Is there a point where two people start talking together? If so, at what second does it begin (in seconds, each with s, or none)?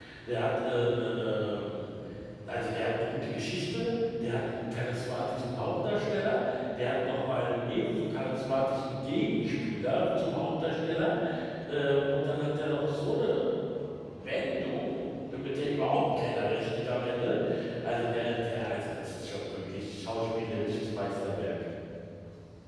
none